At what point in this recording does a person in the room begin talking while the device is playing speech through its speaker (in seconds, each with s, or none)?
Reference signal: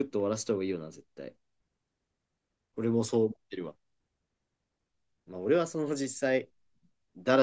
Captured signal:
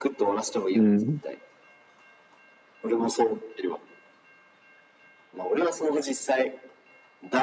0.7 s